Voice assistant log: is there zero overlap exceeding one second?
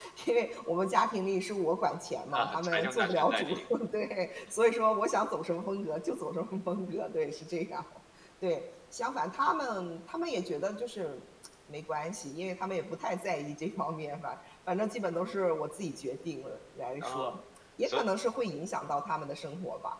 No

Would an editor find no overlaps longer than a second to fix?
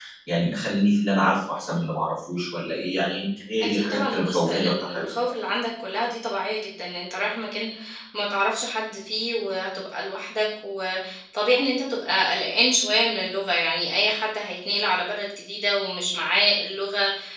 No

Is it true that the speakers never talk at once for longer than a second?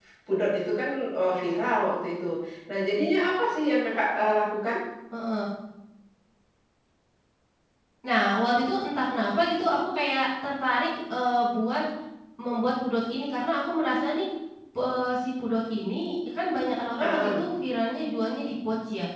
Yes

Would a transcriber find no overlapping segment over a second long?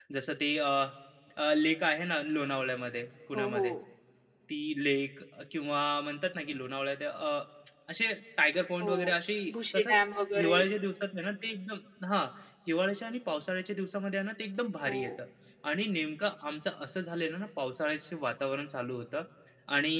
Yes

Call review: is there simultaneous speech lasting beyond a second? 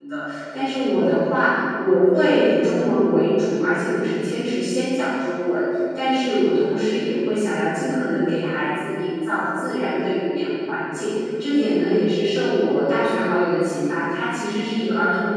No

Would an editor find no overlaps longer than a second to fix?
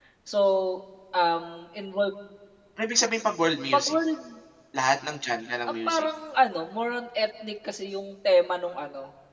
Yes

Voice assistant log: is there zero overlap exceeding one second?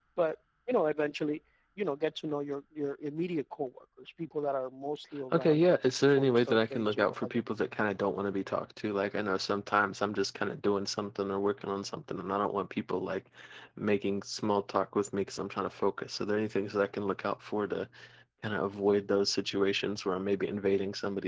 No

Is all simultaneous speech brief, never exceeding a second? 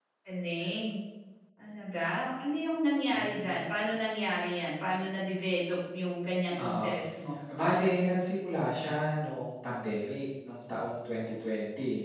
Yes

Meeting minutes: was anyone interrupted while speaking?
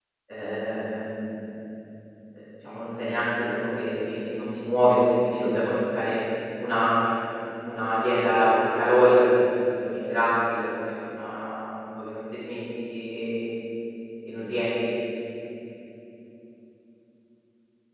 No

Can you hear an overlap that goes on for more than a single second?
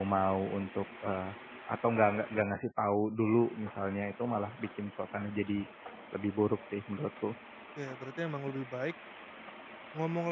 No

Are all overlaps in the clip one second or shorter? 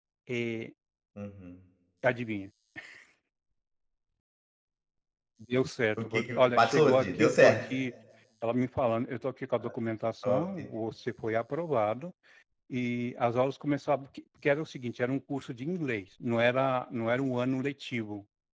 No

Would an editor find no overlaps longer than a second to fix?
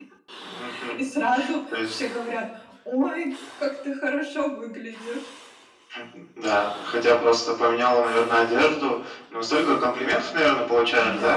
Yes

